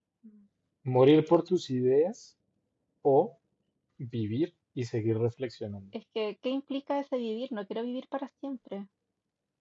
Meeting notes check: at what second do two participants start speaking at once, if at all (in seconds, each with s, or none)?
none